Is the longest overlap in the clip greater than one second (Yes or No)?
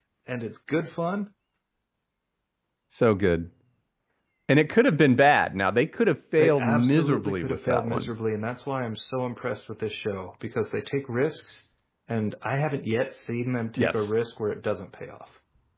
Yes